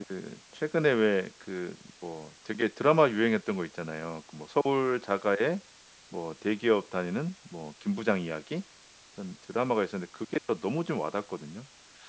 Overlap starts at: none

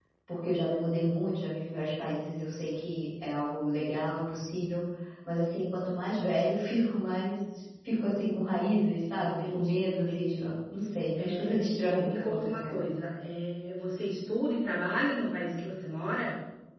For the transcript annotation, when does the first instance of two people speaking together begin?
9.2 s

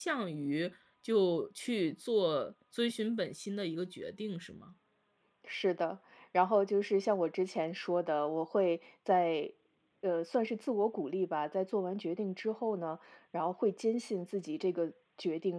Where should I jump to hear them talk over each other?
none

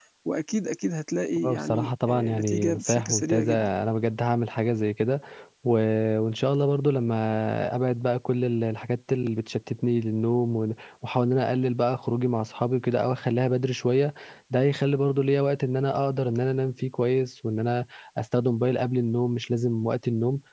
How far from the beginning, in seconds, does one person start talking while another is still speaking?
1.4 s

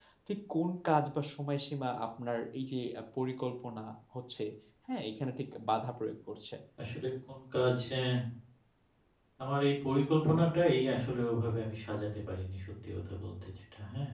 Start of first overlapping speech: none

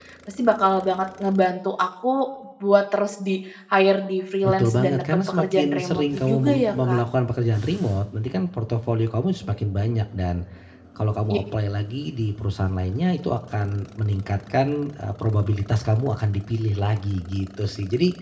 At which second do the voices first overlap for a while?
4.4 s

